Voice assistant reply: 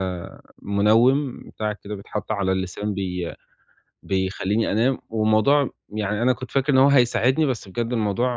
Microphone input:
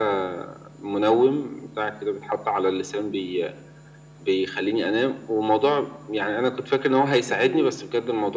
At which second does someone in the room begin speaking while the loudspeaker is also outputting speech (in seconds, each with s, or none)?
7.3 s